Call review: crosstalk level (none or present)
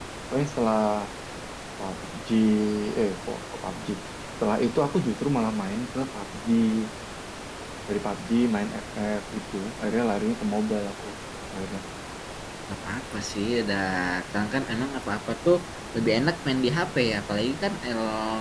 none